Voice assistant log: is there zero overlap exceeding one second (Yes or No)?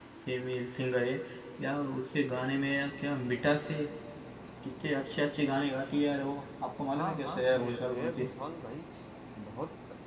No